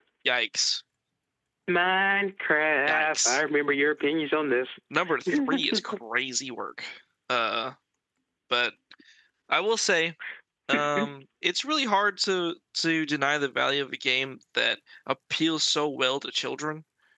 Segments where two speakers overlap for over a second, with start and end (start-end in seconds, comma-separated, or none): none